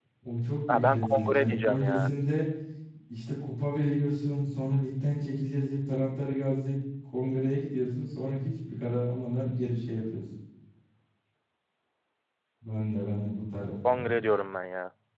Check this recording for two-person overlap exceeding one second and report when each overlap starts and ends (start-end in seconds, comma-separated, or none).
0.7-2.1